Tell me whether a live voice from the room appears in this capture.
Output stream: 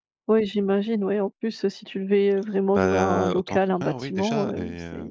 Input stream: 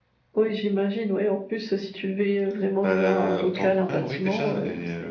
No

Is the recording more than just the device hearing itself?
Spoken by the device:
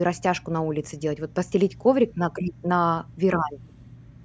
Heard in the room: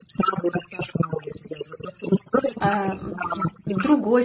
Yes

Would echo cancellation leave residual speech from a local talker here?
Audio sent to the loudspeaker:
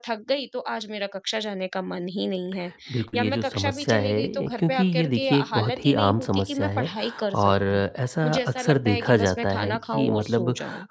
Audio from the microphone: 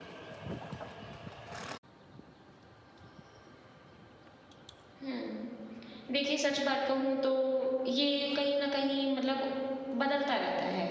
Yes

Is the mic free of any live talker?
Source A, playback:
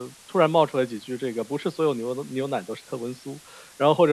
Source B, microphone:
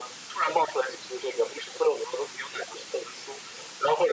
Yes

